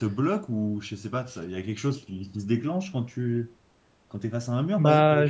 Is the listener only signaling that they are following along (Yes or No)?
No